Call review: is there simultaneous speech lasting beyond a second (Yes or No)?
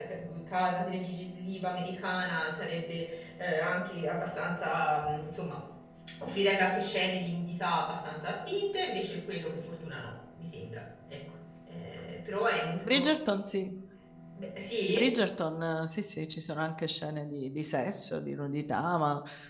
No